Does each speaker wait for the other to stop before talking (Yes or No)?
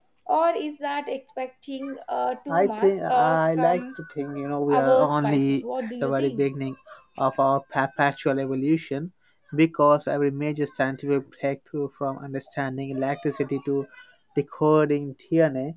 No